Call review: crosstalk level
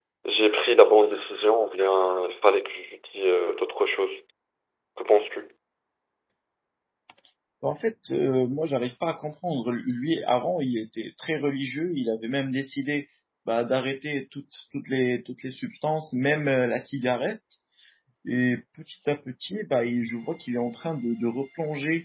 none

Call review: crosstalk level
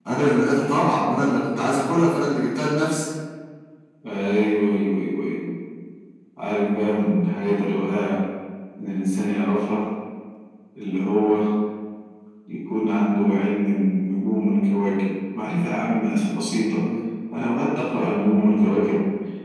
none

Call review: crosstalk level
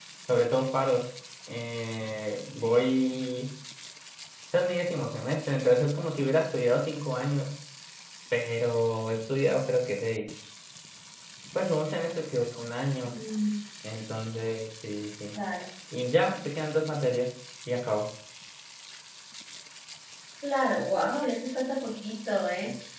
none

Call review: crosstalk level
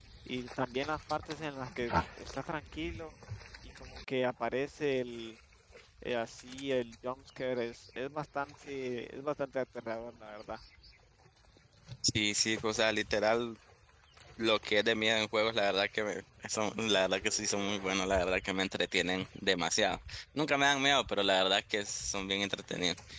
none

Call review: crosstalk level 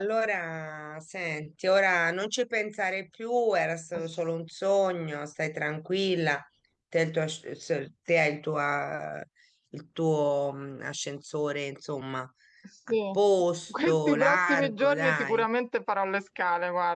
present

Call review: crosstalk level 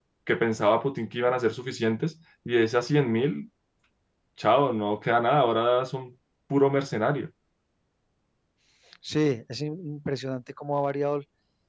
none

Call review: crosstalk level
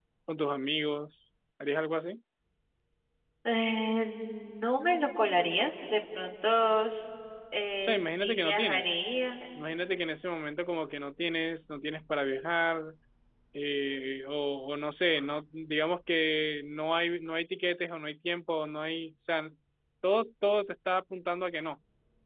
present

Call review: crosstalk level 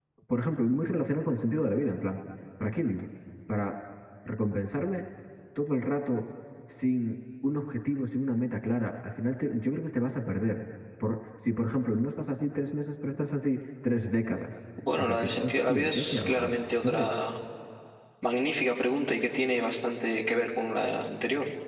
present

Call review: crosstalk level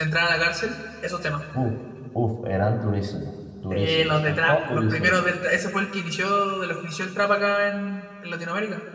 present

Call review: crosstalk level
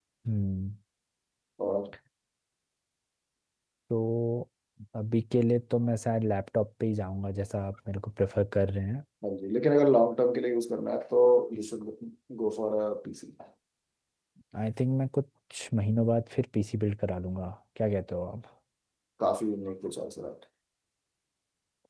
none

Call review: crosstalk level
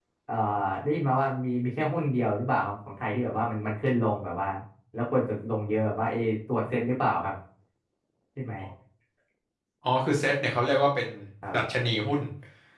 none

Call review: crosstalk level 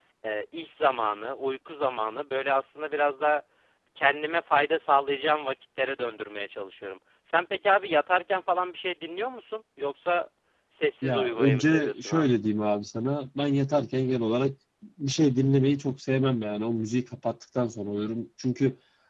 present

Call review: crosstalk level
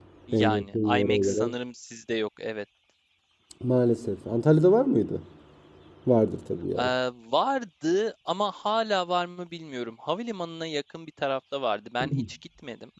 present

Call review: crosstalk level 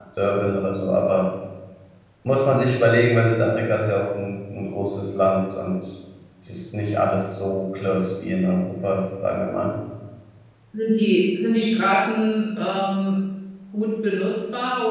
none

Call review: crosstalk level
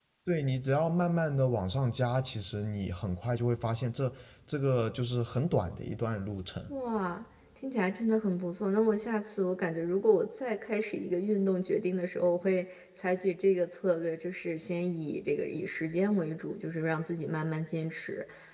none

